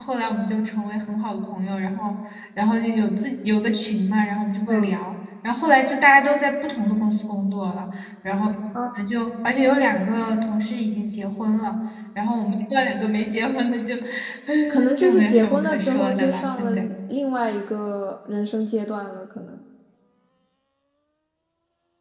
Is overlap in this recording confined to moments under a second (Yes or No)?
No